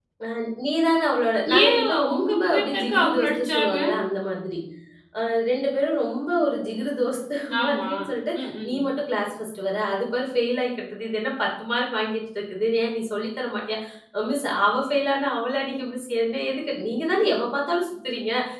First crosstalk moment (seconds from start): 1.6 s

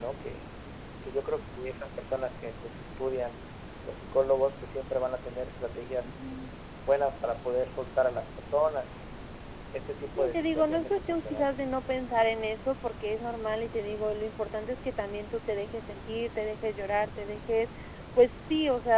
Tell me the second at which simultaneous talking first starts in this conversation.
10.2 s

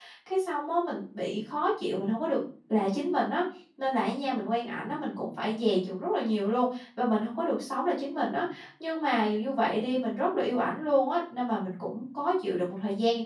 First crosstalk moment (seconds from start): none

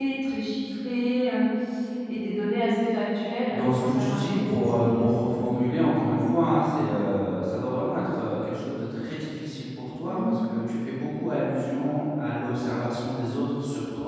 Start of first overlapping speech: 3.5 s

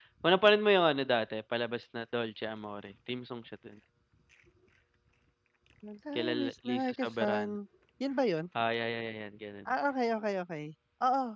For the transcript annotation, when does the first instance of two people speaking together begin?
6.2 s

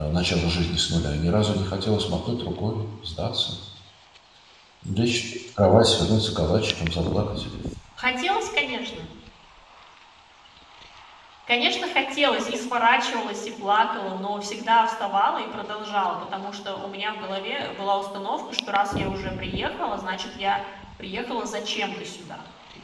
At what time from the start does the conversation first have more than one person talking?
none

